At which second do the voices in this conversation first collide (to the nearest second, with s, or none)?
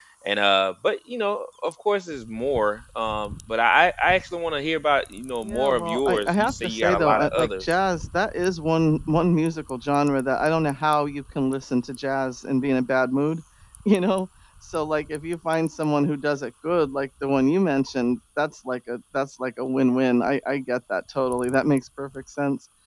5 s